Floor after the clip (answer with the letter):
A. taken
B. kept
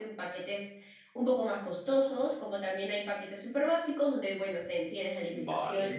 B